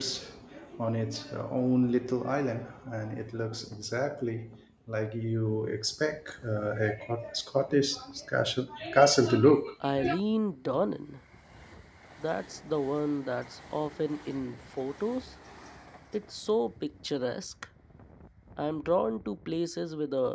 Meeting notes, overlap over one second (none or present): none